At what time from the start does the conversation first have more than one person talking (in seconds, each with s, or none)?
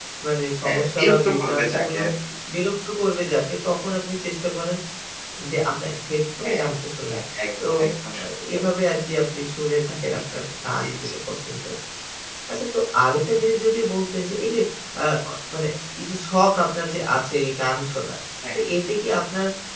0.6 s